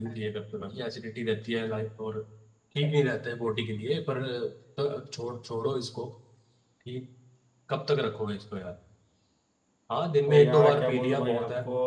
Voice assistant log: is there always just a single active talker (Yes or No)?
No